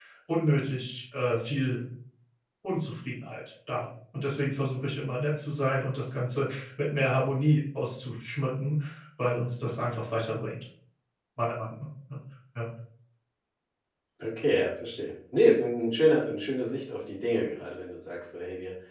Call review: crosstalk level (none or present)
none